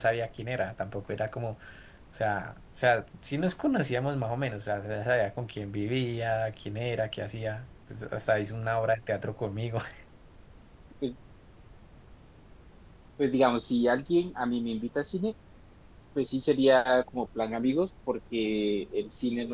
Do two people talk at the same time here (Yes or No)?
No